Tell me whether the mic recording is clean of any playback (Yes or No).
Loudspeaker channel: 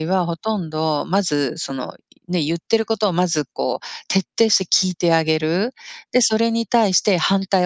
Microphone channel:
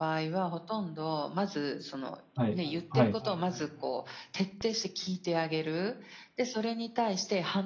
No